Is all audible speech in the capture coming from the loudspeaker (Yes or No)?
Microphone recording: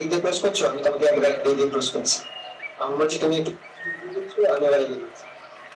Yes